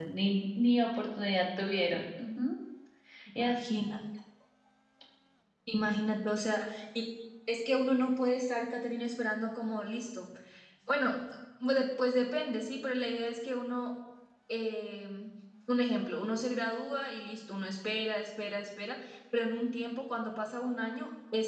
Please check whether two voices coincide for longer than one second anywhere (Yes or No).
No